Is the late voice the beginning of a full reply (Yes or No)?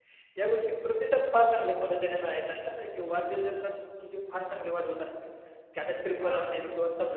No